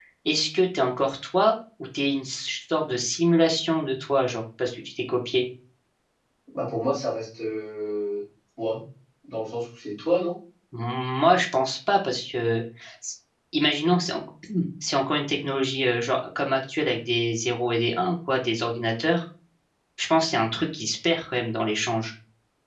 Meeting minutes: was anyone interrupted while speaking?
No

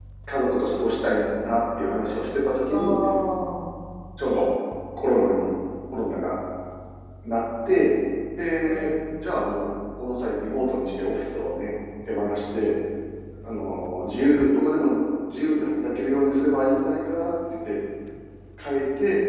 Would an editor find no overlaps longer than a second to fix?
Yes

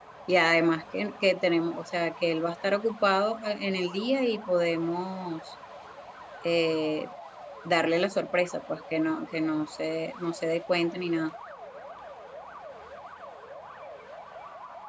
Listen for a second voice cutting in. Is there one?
No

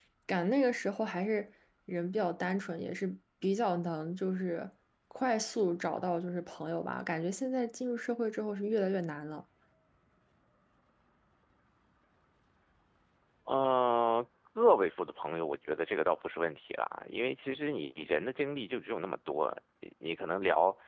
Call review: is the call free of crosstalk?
Yes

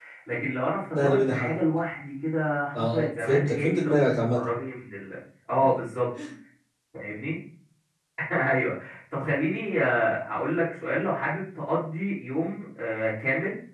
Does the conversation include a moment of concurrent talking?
Yes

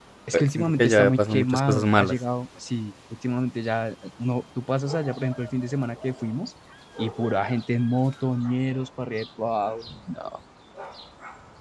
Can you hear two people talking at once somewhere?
Yes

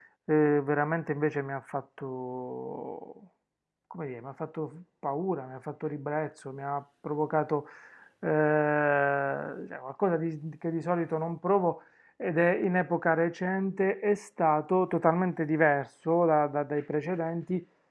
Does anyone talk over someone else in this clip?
No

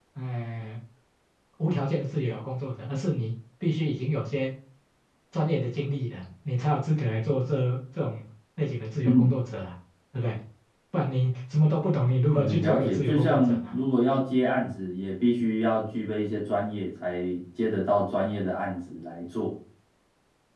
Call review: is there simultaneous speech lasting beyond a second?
Yes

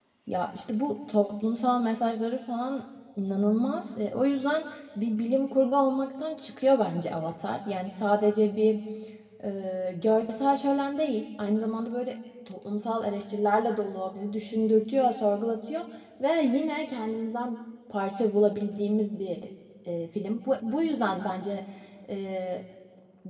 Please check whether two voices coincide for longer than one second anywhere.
No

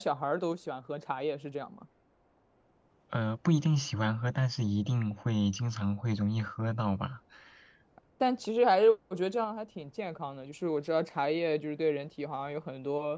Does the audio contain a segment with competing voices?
No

